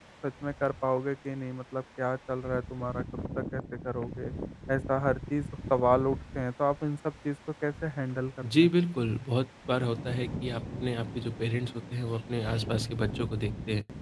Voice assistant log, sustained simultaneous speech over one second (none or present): none